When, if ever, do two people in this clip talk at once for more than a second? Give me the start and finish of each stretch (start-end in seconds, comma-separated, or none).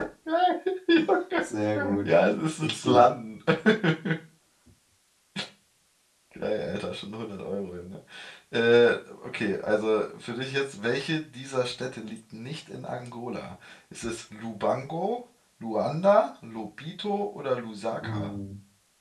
none